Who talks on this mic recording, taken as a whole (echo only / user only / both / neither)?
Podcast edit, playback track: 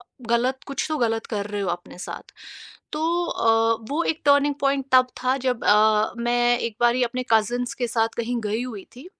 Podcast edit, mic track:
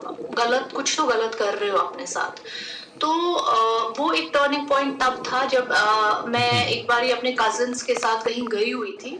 both